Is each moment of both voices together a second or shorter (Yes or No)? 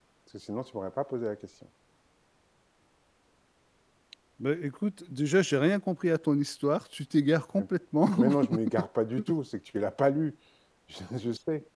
Yes